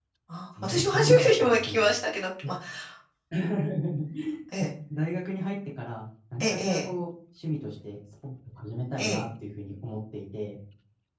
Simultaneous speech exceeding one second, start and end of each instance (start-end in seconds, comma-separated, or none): 0.6-1.9